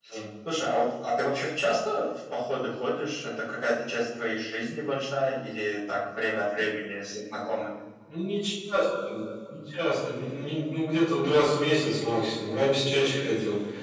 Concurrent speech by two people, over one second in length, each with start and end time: none

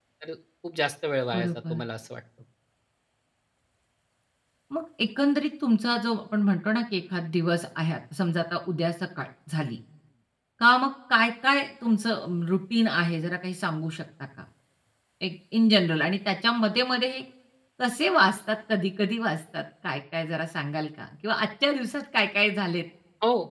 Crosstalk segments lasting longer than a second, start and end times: none

